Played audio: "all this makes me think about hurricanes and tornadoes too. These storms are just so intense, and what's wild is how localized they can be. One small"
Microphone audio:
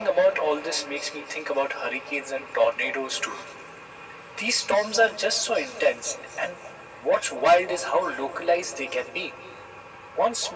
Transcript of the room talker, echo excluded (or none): none